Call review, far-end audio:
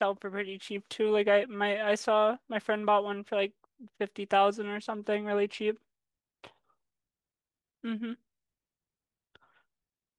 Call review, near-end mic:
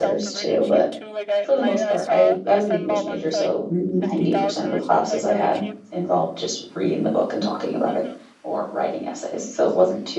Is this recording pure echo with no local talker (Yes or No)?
No